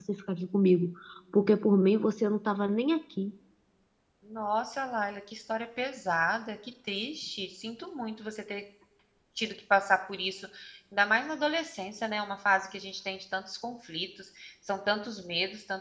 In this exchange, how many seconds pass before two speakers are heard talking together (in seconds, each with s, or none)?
none